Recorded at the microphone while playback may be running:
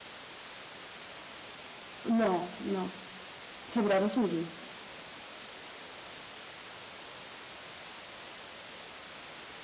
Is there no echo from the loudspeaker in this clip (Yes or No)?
Yes